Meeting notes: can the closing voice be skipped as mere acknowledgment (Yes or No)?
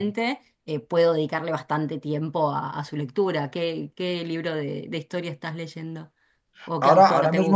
No